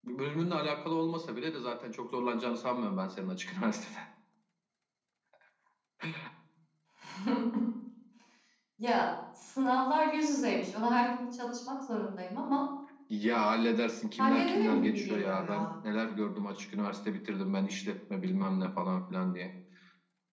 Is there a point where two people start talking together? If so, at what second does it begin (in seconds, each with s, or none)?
14.2 s